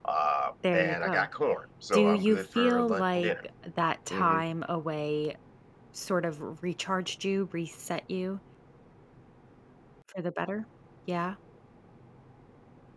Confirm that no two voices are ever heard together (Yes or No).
No